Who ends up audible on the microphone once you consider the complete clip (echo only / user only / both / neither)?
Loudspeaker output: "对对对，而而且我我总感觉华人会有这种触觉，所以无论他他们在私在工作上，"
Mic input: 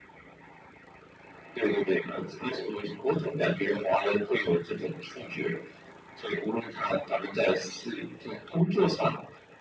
echo only